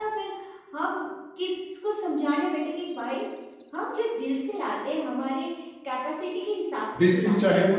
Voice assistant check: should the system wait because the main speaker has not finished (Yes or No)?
No